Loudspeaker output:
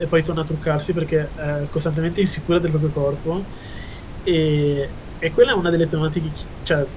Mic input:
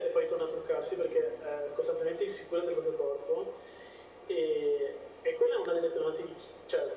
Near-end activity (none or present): none